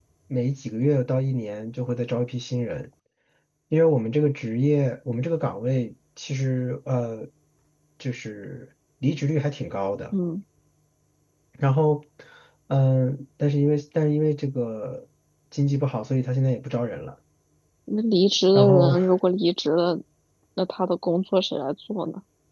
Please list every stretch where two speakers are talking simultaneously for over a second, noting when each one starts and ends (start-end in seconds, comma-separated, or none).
none